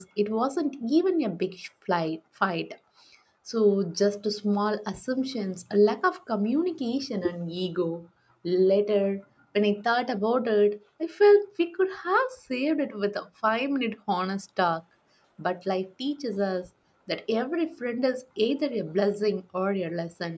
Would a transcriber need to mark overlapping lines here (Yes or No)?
No